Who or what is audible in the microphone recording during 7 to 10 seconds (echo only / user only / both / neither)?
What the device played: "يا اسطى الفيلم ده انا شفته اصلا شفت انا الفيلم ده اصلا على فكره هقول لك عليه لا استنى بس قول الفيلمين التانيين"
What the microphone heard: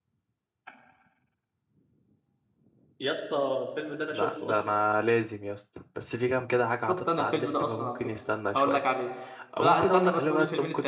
both